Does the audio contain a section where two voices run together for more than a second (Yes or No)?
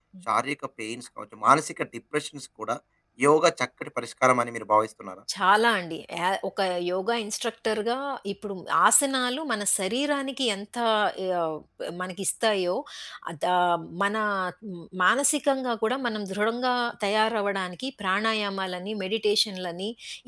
No